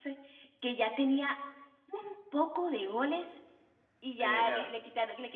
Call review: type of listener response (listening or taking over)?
listening